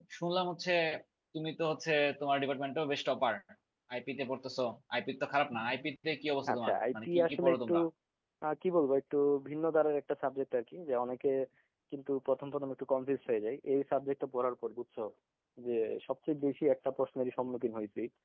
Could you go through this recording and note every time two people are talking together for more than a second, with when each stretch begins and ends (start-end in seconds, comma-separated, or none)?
6.5-7.7